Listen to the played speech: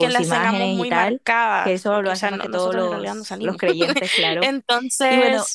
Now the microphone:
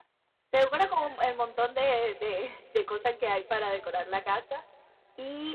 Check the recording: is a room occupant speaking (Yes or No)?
Yes